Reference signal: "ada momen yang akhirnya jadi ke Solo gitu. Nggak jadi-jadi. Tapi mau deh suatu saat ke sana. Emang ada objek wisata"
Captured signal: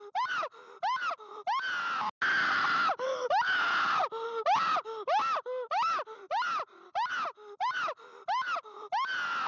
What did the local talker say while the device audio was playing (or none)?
none